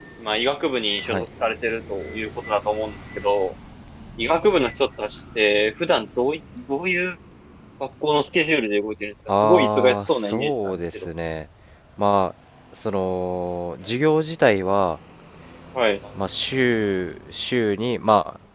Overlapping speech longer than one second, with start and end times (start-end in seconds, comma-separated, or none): 9.4-11.1